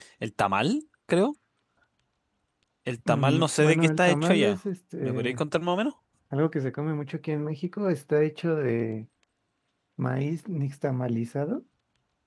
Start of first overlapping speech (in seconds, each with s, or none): 3.1 s